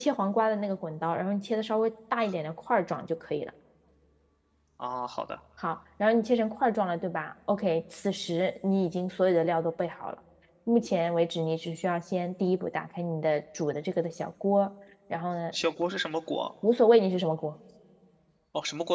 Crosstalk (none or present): none